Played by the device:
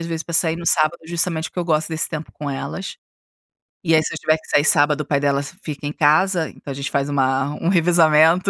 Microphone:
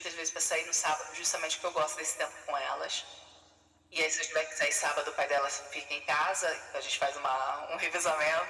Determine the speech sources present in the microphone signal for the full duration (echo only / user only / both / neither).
echo only